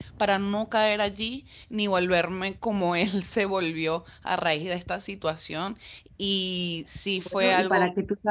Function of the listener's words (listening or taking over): taking over